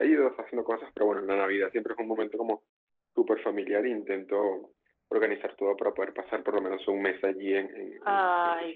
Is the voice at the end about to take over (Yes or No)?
Yes